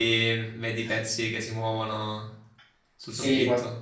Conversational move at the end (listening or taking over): taking over